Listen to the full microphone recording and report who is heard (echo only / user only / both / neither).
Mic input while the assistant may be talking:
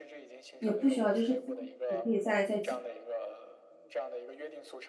both